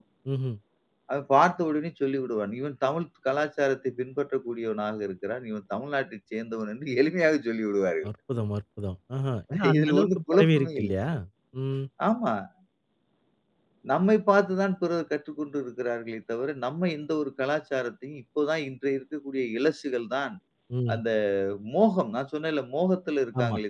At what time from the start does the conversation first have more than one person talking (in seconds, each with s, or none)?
9.5 s